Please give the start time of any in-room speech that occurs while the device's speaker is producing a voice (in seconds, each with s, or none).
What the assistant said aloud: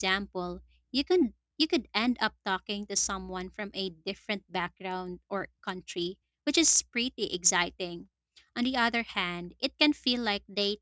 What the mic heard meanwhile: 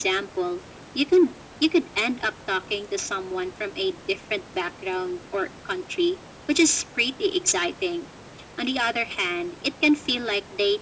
none